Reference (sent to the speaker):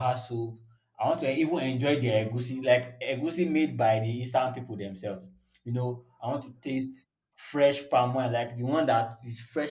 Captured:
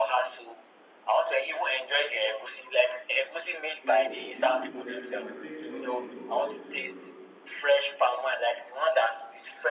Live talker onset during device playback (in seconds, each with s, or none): 3.9 s